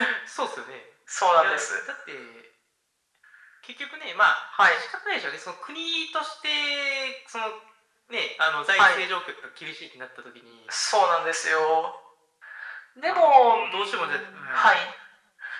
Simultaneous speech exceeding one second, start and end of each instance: 13.0-14.8

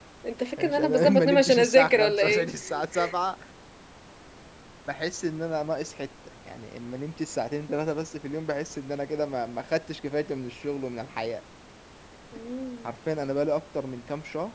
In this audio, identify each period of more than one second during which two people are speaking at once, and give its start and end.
0.6-2.5

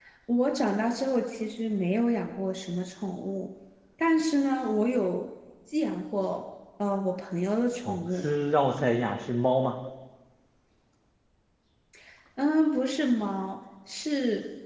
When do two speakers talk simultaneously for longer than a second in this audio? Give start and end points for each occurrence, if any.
none

